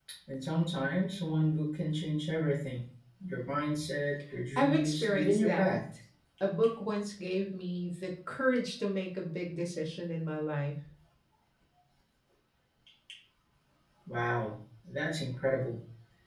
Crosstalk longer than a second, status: present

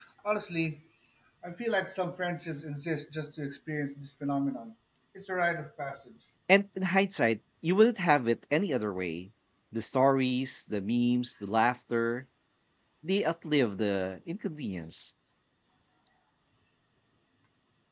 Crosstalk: none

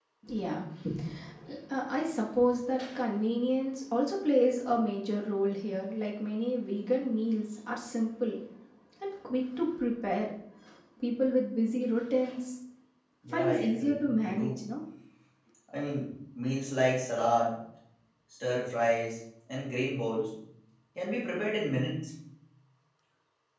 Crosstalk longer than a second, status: present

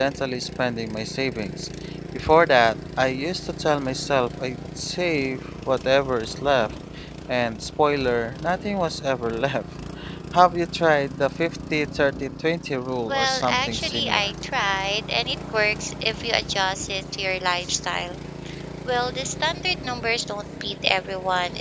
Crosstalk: present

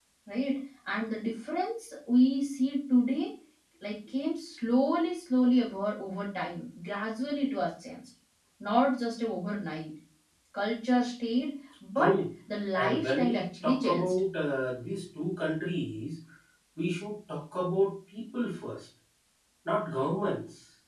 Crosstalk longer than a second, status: present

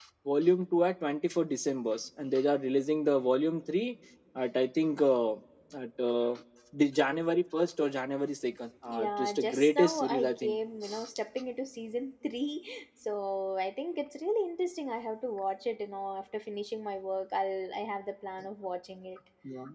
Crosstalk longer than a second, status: present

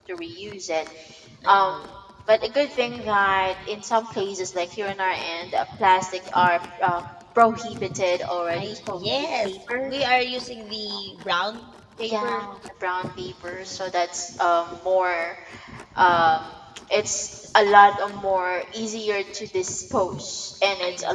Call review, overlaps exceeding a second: present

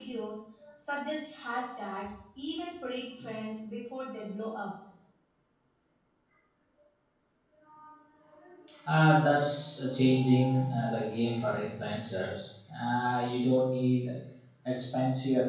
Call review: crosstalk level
none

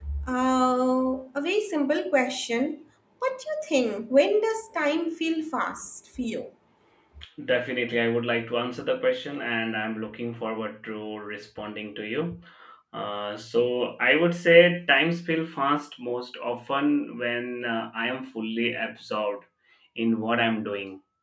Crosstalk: none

